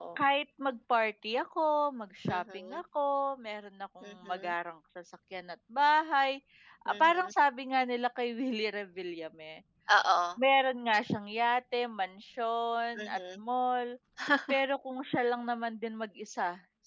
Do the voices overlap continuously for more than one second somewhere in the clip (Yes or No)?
No